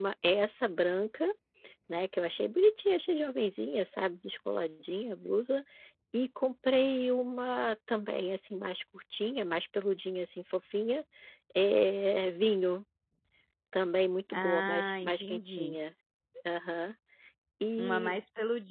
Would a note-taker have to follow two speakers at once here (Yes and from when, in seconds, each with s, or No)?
Yes, from 14.3 s